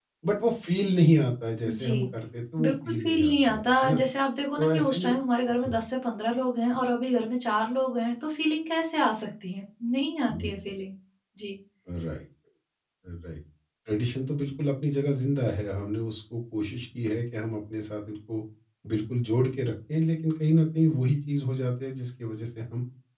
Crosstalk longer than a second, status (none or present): present